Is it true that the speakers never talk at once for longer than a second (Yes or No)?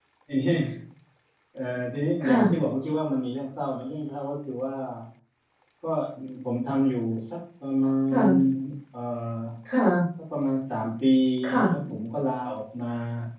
Yes